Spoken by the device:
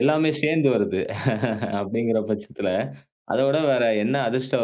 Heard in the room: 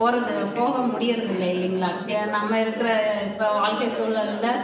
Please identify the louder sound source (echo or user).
user